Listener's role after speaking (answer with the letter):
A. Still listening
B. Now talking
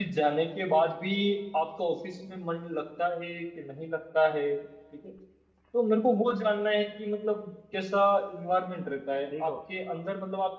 A